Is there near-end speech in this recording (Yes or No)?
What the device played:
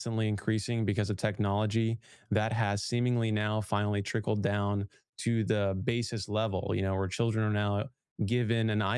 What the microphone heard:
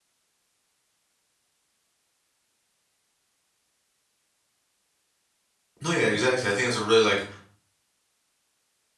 Yes